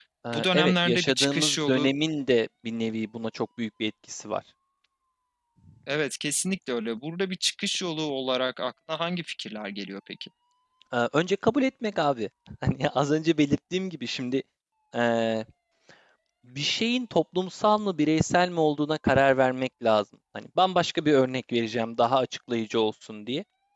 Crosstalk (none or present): present